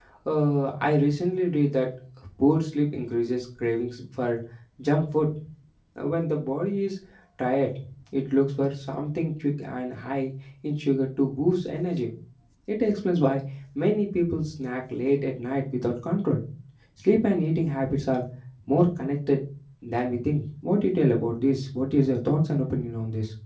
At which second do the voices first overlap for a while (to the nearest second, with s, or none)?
none